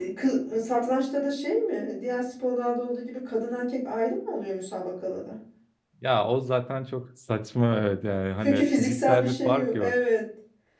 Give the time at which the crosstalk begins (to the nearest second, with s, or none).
8 s